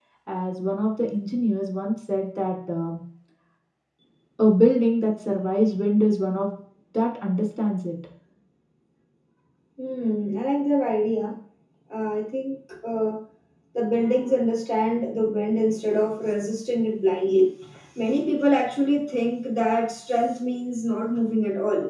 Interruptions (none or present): none